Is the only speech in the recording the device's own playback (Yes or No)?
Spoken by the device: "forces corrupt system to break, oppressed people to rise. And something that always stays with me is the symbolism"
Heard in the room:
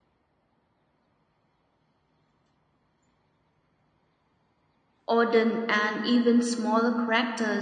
No